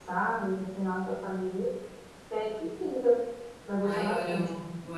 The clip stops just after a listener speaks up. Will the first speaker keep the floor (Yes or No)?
No